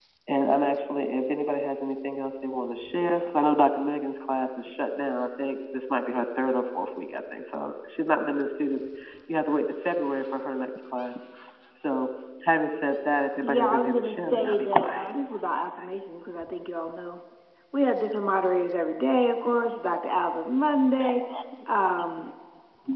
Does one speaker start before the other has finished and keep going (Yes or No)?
Yes